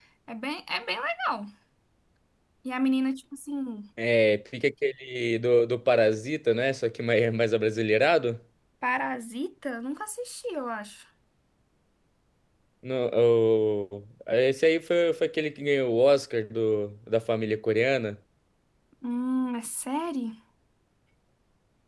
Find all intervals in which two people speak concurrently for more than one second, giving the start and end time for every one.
none

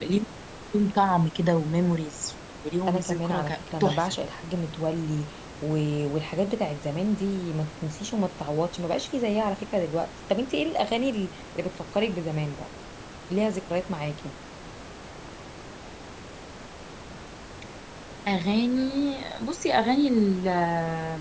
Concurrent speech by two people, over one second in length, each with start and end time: 2.9-4.1

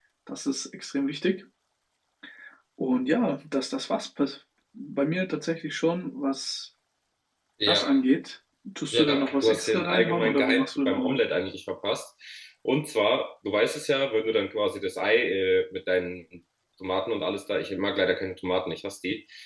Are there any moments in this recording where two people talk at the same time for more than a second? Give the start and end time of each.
8.9-11.2

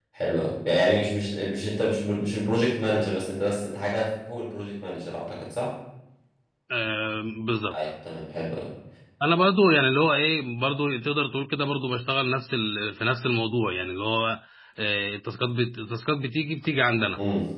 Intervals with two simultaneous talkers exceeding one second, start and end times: none

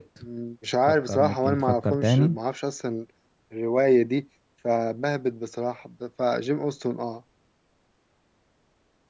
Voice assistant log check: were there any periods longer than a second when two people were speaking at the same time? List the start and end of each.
0.9-2.4

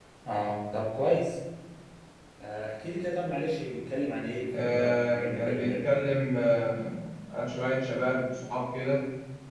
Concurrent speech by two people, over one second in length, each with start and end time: 4.6-5.8

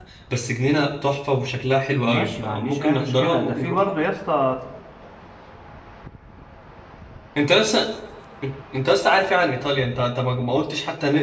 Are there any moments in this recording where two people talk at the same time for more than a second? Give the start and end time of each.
2.0-3.8

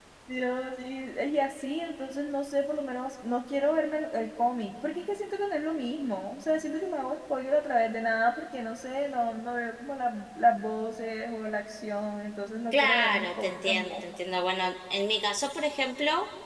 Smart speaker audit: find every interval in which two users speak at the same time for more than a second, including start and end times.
12.7-14.0

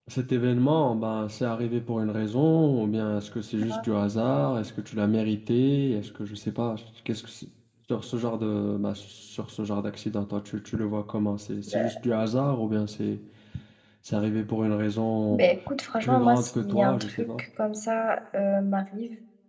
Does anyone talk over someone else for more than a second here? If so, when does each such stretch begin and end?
16.0-17.3

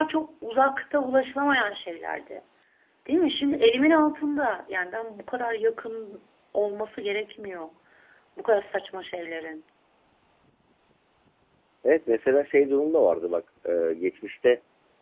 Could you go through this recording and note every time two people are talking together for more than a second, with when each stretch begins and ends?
none

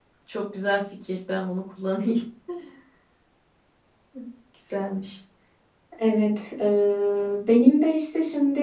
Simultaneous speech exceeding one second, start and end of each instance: none

